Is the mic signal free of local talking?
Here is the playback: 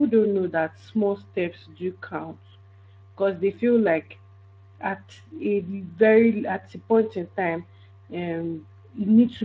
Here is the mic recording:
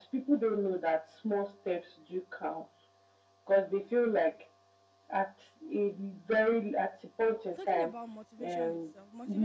No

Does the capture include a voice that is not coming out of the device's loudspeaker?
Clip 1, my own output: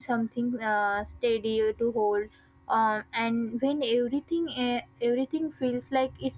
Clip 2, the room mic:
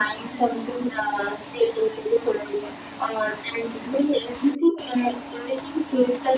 No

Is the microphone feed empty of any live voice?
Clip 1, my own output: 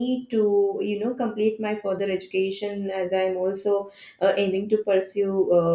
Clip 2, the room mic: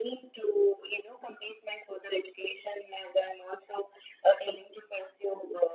Yes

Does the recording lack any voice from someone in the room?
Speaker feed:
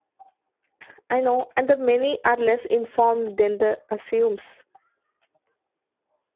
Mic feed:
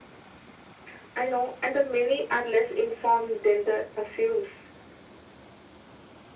Yes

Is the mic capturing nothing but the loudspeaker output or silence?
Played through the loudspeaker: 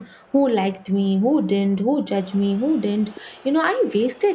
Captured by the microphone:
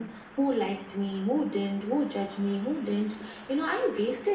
Yes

